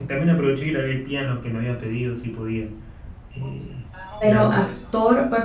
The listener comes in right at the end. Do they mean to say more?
Yes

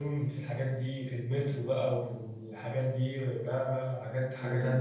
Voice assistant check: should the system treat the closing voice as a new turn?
Yes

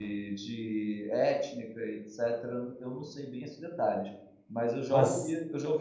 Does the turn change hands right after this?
No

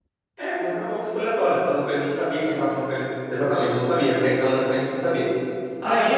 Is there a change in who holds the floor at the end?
No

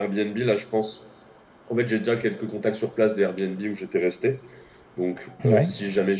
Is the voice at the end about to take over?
No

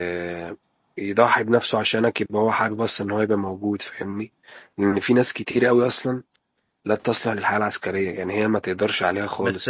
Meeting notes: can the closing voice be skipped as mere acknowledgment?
No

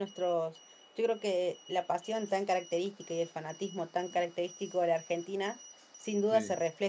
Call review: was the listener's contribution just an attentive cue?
Yes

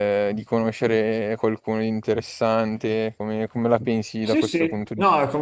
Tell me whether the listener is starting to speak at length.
Yes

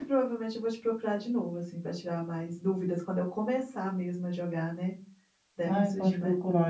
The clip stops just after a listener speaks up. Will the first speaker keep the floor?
No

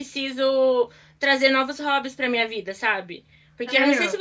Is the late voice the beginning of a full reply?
No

